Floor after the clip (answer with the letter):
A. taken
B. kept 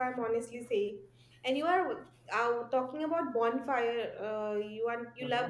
B